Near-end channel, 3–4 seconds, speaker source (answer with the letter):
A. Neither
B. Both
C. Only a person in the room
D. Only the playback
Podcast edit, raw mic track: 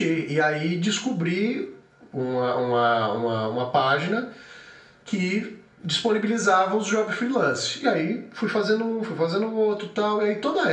D